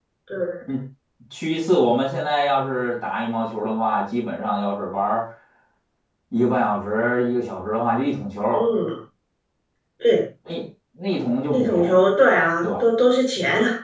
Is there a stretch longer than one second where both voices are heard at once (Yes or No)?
No